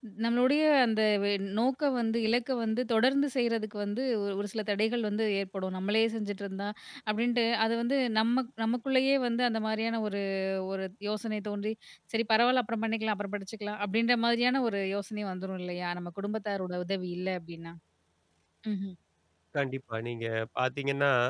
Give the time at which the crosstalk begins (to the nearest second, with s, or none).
none